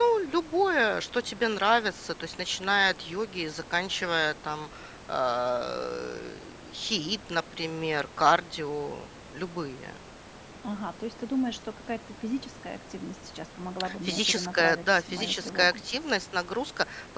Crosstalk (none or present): present